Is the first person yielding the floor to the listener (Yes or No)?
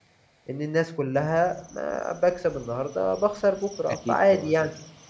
Yes